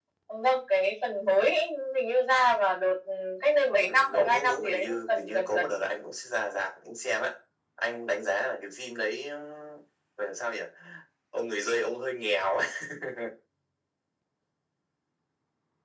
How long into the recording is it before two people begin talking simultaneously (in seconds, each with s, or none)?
3.8 s